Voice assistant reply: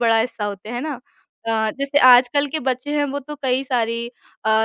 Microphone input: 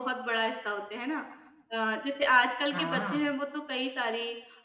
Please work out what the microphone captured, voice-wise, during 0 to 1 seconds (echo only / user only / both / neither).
echo only